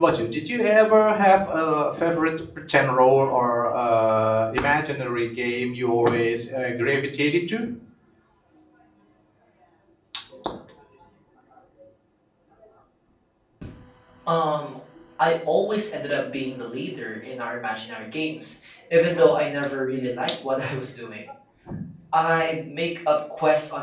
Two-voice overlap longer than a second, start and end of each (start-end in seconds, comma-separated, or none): none